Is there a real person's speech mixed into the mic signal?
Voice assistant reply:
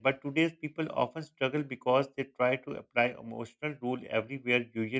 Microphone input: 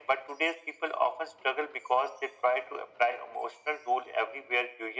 No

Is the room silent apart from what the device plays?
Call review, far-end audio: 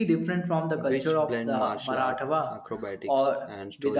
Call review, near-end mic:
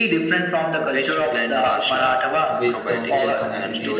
No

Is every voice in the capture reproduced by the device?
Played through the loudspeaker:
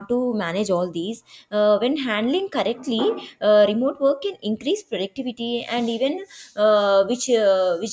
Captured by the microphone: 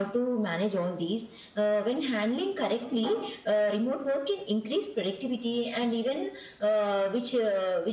Yes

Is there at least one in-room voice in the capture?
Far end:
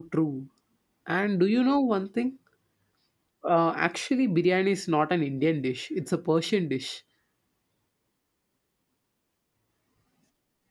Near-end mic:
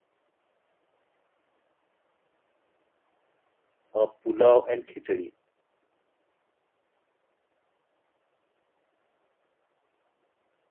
Yes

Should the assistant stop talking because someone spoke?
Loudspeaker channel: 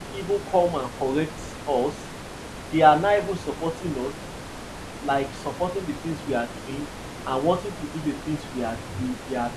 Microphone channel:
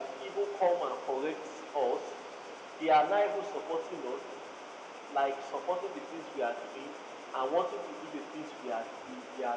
No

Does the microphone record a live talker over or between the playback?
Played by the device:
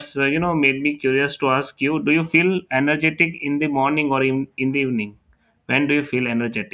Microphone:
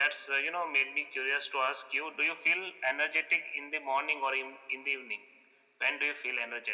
No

